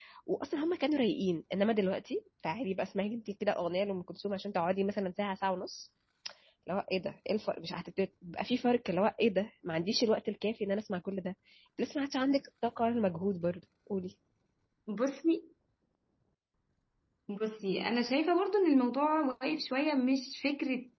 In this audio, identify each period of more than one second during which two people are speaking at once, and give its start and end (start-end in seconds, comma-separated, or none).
none